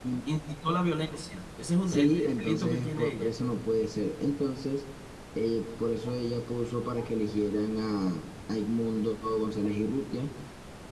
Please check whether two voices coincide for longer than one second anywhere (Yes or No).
Yes